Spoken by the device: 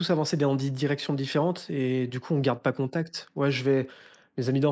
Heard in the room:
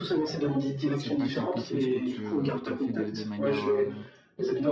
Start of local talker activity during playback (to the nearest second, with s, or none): 1 s